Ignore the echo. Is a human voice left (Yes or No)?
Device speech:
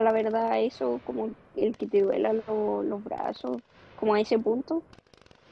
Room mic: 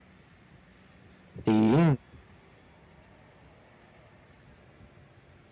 Yes